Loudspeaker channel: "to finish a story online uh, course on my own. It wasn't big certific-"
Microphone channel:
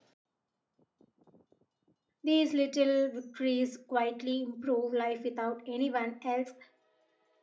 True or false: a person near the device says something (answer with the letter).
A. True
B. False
A